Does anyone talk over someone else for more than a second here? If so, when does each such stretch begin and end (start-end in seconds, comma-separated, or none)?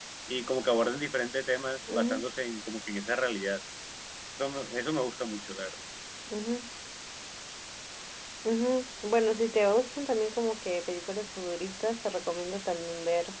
none